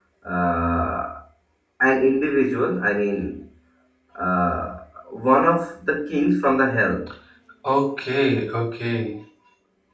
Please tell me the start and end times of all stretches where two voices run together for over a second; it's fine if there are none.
none

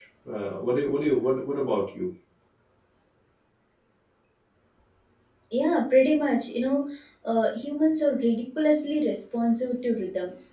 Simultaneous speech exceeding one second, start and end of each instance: none

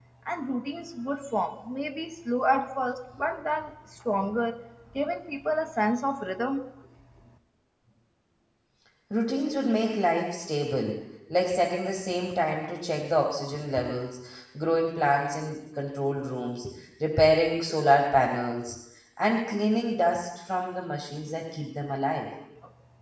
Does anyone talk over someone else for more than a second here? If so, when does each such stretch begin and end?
none

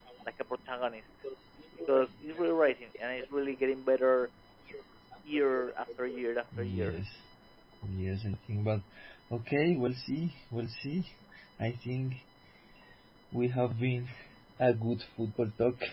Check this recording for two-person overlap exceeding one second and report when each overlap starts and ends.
none

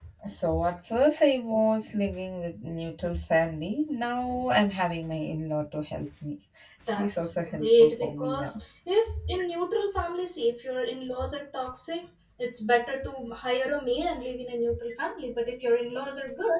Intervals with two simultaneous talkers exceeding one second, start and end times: 6.9-8.5

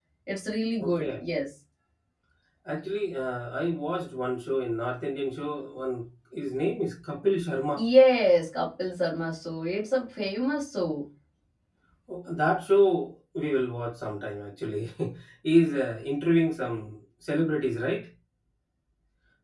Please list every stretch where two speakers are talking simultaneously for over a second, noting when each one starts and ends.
none

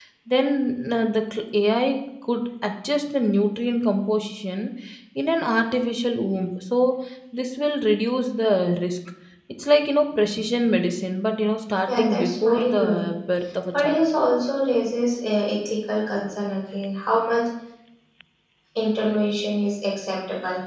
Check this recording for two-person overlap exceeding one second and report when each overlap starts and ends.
11.9-13.1

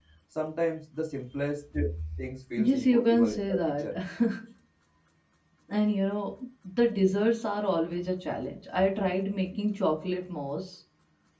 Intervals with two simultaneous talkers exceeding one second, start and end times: 2.6-3.9

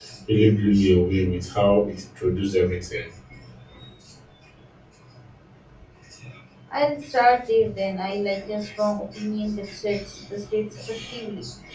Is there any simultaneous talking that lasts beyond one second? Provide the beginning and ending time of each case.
none

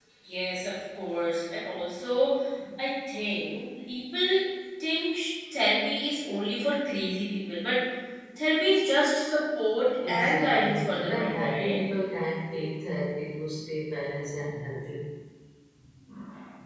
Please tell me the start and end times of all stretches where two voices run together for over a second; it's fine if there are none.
10.1-11.8

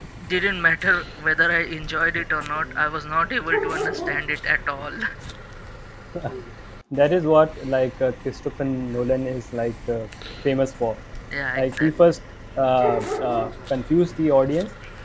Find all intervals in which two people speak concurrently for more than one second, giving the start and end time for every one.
none

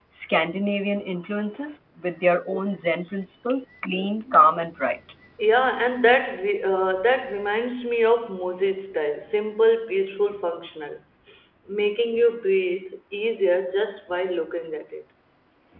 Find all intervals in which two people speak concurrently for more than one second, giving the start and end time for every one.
none

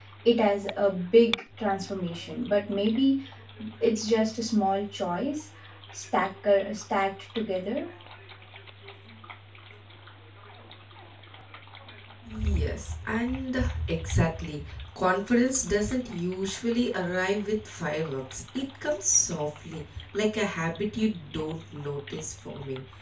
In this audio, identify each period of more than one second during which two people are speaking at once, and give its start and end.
none

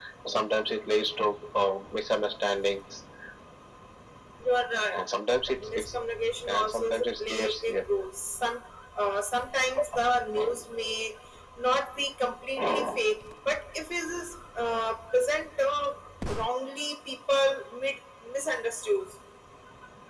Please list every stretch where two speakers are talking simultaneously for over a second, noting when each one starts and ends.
6.5-7.8

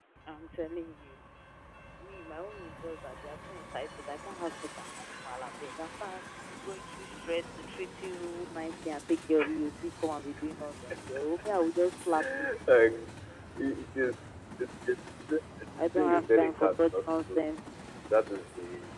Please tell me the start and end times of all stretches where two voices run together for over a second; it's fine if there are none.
16.0-17.4

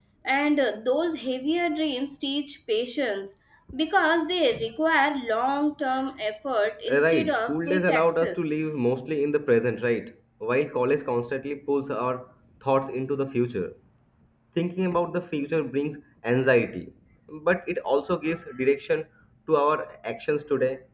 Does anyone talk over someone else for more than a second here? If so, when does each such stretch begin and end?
7.0-8.5

